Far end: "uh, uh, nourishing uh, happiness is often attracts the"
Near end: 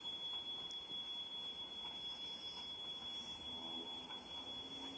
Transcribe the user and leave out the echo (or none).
none